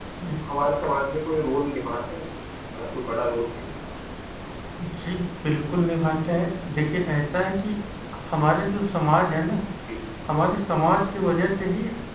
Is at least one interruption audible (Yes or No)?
No